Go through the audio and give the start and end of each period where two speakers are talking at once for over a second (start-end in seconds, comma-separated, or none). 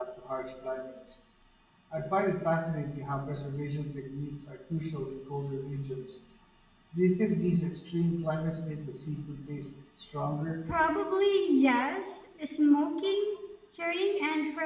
none